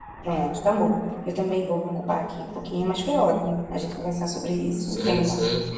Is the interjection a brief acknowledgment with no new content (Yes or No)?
No